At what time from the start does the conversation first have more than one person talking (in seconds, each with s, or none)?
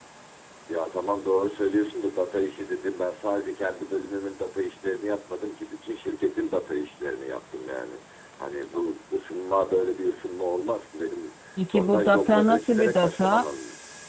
11.6 s